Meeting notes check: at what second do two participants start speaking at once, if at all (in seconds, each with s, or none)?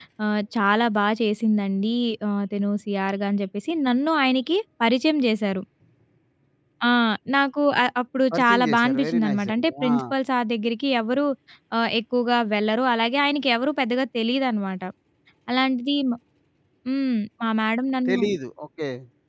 8.3 s